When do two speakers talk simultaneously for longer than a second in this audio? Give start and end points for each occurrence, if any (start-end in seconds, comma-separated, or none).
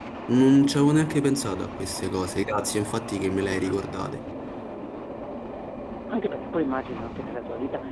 none